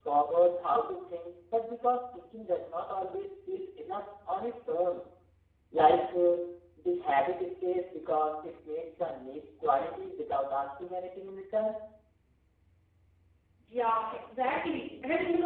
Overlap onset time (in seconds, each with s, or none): none